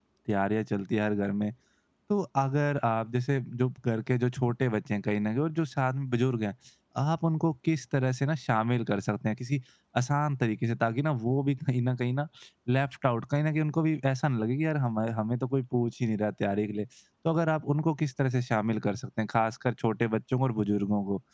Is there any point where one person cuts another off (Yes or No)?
No